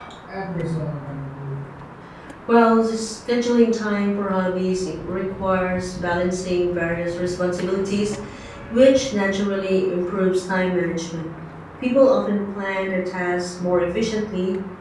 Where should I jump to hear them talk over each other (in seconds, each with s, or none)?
none